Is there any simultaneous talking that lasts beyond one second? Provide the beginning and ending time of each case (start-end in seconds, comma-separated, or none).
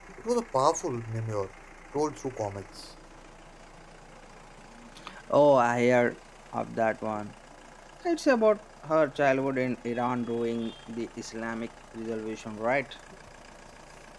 none